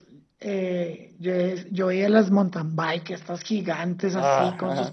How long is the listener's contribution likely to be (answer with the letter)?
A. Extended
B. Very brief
B